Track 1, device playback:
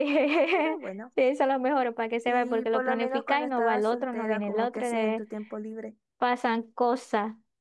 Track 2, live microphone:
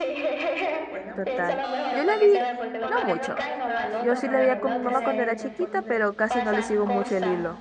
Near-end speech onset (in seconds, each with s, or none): 1.1 s